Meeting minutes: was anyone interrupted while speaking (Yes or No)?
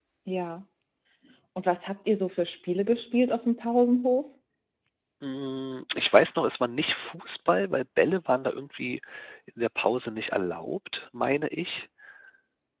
No